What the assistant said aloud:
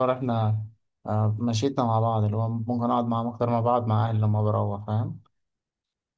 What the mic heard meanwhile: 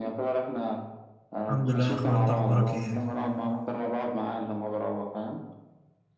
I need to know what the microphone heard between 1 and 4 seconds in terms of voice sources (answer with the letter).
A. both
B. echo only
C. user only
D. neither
A